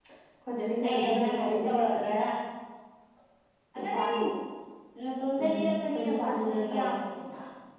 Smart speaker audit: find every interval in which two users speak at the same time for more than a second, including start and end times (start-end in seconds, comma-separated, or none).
0.8-2.1, 5.4-6.9